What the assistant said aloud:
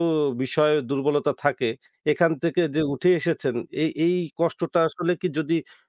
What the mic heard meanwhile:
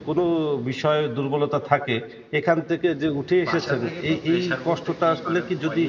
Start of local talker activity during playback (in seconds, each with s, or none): 3.5 s